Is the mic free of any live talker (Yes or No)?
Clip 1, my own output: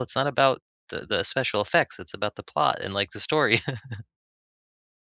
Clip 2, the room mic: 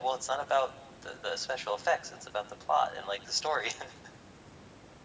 Yes